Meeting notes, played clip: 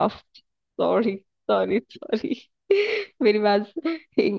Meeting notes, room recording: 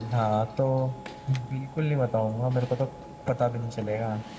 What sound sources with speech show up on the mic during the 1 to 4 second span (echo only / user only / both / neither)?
user only